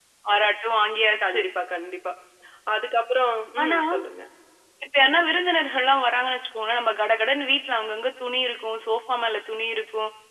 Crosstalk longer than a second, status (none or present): none